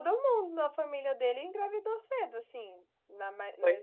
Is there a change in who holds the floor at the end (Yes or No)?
No